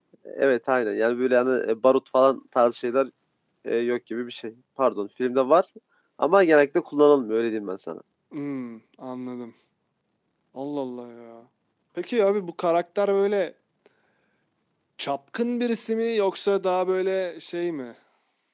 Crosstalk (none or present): none